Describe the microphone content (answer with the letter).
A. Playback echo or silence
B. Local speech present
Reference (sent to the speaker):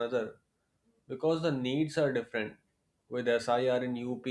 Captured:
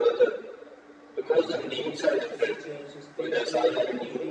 B